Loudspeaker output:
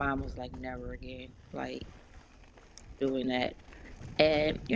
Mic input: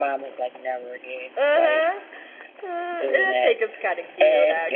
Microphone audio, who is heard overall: both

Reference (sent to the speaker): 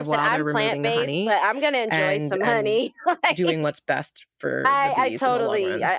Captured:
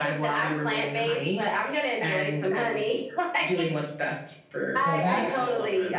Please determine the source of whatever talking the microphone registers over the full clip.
both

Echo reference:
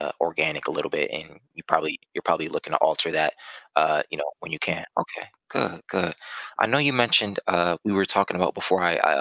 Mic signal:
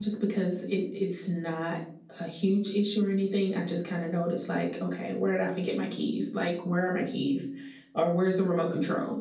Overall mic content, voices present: user only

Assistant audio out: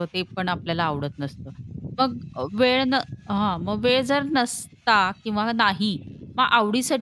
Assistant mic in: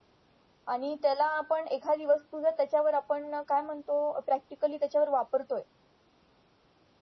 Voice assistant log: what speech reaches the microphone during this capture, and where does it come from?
user only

